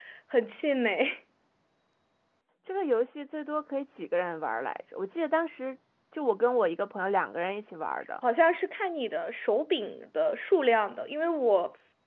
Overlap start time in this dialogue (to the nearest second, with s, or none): none